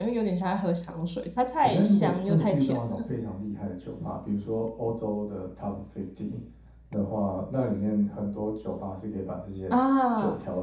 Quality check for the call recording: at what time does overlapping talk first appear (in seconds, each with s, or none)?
1.6 s